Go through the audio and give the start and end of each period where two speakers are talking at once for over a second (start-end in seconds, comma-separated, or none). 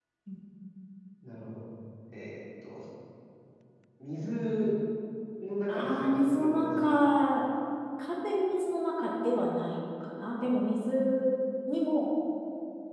5.7-7.1